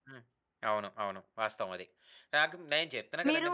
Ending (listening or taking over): listening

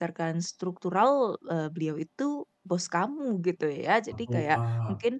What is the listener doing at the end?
listening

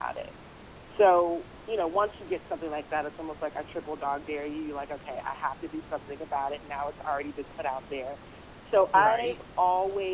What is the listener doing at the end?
listening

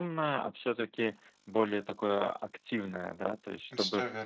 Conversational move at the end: listening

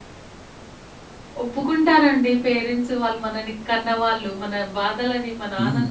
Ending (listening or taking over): listening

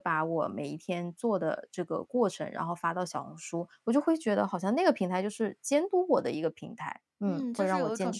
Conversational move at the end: taking over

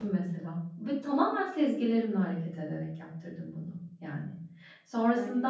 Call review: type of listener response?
listening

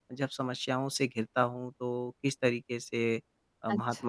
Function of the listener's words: listening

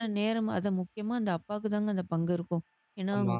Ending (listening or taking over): listening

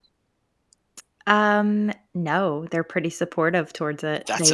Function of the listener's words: listening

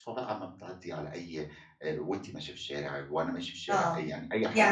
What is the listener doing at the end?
taking over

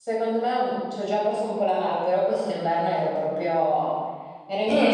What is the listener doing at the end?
taking over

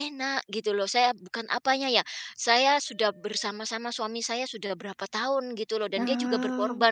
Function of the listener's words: listening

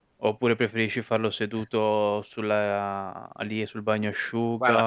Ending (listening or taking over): listening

